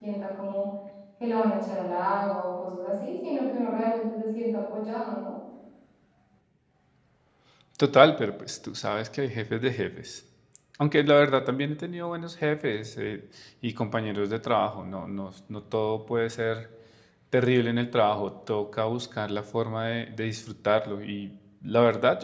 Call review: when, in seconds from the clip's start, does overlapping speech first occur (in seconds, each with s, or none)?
none